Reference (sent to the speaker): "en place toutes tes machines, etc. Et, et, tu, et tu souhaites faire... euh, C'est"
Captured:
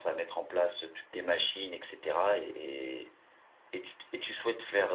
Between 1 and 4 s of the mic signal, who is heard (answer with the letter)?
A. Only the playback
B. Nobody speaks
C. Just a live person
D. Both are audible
A